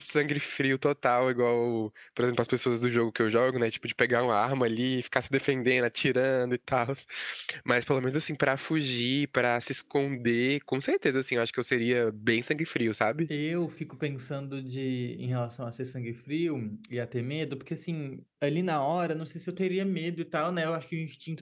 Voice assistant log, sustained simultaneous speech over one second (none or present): none